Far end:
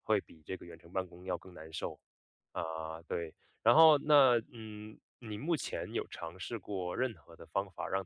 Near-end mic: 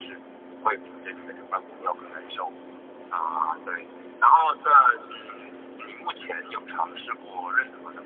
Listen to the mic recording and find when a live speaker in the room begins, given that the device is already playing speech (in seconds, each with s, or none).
none